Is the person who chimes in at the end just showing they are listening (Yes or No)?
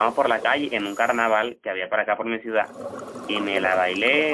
Yes